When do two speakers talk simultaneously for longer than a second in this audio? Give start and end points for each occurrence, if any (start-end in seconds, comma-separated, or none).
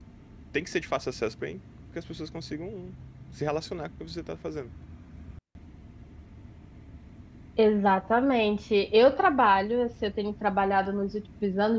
none